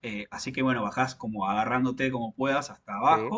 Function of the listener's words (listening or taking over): listening